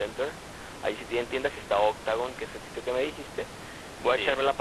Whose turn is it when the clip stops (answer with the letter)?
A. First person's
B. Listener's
A